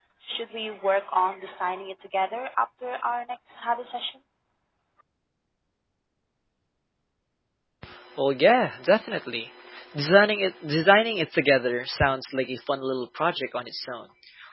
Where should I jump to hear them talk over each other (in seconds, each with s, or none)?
none